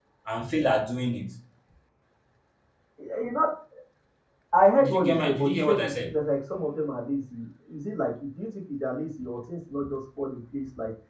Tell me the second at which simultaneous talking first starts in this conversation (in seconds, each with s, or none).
4.8 s